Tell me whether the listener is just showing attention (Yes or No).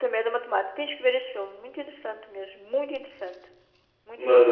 No